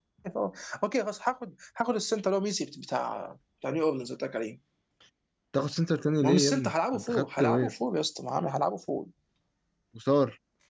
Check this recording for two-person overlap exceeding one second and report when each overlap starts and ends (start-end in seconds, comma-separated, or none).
6.2-7.8